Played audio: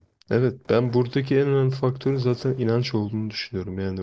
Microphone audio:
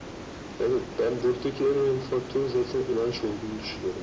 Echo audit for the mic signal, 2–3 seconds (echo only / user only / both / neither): echo only